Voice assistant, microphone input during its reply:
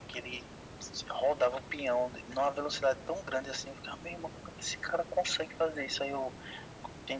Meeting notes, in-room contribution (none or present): none